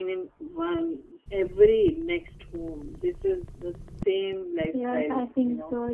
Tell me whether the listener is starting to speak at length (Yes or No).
Yes